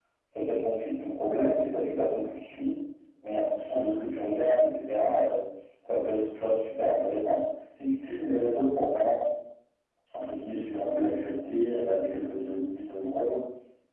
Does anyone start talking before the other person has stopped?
No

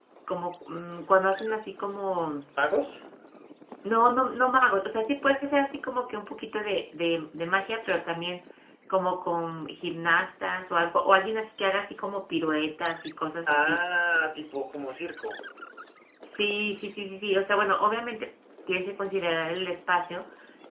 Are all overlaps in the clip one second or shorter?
Yes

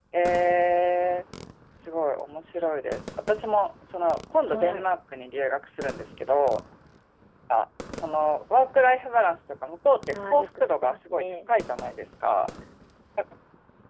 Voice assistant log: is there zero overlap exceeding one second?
No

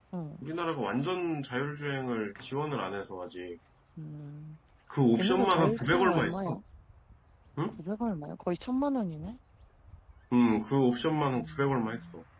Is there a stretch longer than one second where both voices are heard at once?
Yes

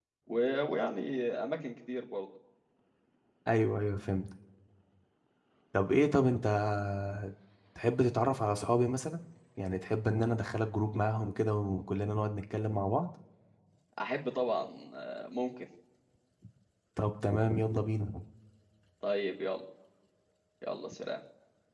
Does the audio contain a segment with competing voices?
No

